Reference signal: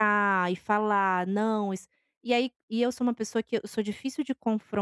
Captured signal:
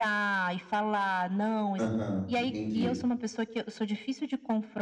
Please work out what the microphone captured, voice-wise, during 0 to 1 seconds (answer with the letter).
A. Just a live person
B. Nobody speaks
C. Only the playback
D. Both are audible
C